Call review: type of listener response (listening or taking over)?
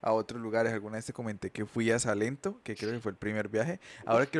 listening